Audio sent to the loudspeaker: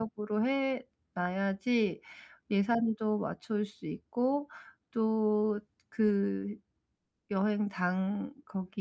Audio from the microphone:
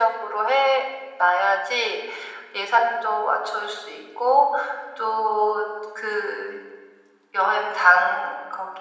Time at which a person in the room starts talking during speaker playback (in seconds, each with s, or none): none